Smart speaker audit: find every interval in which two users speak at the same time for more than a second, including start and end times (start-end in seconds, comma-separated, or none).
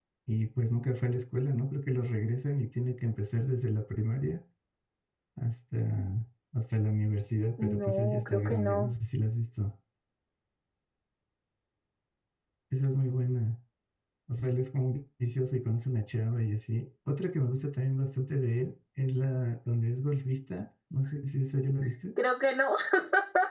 7.6-8.9